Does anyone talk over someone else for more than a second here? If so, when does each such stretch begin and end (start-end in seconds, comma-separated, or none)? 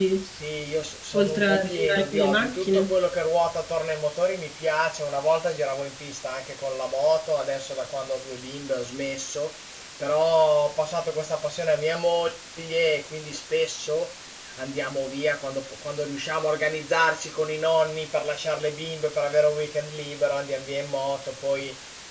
1.1-2.8